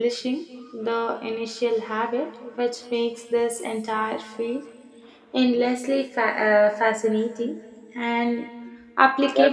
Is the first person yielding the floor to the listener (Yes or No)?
No